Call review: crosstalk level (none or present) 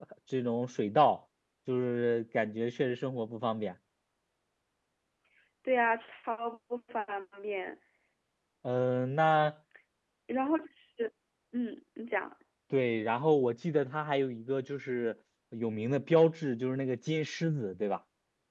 none